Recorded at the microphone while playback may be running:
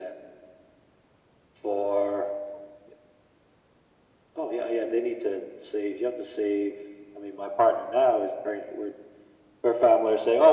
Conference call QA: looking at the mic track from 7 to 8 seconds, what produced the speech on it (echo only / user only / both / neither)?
echo only